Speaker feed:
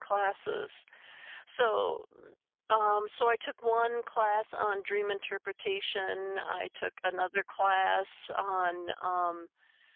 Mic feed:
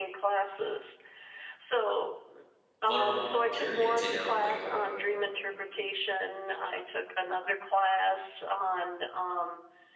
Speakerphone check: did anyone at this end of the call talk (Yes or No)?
Yes